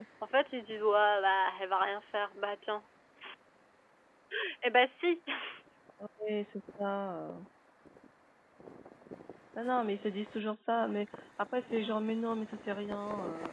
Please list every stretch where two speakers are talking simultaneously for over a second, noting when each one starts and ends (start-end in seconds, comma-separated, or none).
none